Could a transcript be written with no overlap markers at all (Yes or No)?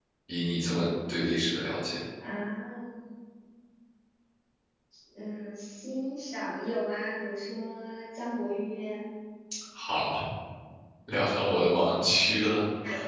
Yes